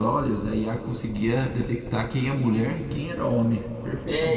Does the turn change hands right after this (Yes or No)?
Yes